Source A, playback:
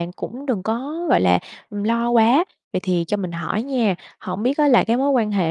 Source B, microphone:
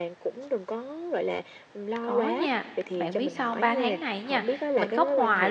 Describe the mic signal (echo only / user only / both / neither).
both